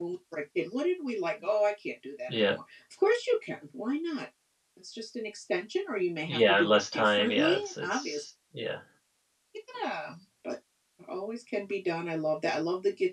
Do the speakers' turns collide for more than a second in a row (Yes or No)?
Yes